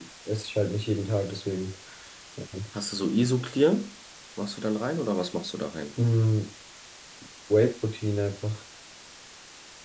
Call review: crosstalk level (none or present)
none